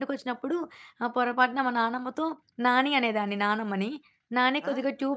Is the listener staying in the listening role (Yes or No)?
Yes